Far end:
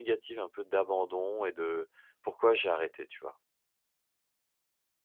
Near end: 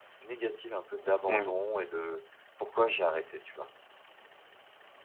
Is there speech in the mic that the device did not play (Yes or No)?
Yes